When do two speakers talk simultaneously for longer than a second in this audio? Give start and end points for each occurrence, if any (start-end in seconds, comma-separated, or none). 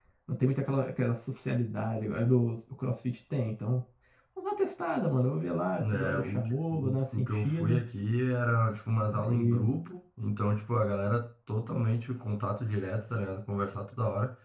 5.8-7.8